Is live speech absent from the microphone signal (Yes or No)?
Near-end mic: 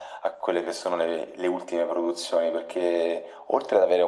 Yes